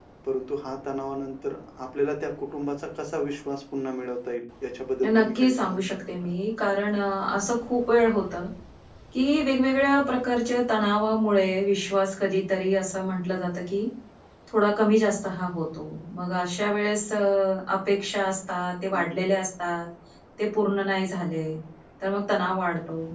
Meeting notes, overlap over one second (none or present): present